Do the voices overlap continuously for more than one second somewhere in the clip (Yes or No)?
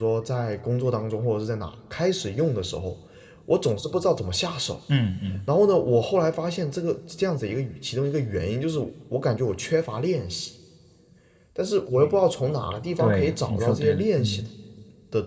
Yes